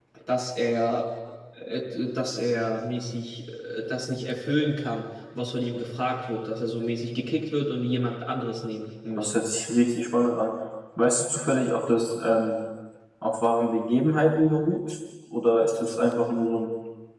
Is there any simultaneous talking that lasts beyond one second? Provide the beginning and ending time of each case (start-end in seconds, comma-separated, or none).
none